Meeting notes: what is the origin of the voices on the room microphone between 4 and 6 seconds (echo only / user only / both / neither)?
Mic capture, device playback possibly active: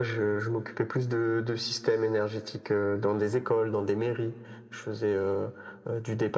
echo only